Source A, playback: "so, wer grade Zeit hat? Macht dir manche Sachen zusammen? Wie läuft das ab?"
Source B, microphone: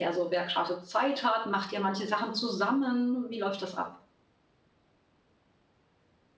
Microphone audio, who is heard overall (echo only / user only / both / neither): echo only